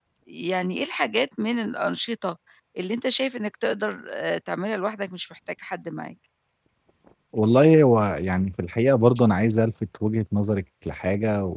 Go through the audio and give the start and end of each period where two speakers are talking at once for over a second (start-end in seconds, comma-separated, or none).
none